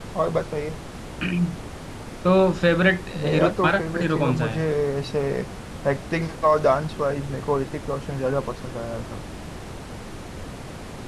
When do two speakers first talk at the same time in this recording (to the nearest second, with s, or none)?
3 s